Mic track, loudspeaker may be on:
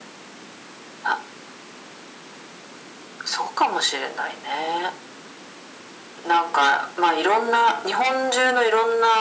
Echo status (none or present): present